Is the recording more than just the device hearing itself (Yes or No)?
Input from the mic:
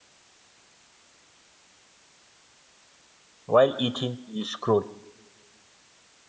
Yes